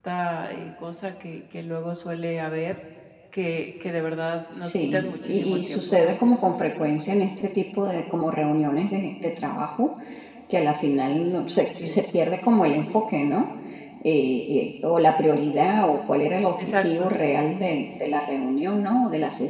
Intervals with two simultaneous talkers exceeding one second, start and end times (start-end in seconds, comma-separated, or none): 4.6-6.2